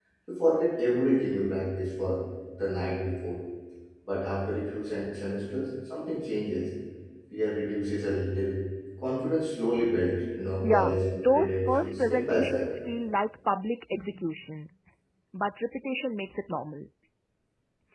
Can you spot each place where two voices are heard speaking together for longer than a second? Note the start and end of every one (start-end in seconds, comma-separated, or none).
10.6-12.7